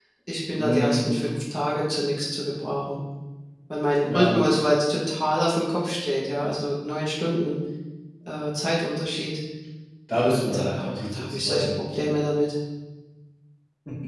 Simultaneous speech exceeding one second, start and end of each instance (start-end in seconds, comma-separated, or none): 10.1-11.7